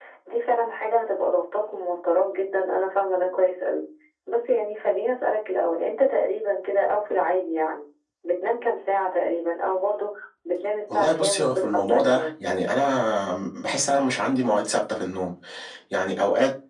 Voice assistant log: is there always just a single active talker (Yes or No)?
No